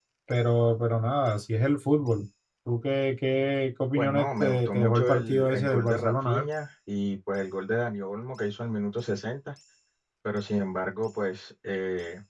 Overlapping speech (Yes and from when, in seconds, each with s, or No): Yes, from 4.0 s